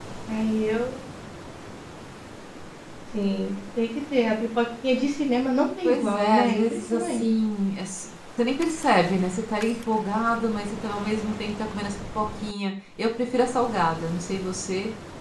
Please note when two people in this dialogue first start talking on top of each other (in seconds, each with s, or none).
5.8 s